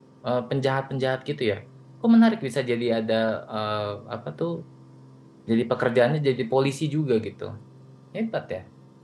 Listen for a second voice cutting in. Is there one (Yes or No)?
No